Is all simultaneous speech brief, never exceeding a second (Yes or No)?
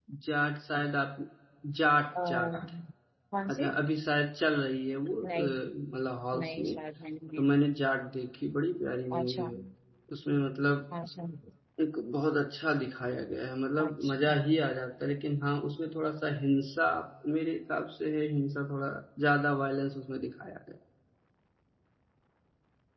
Yes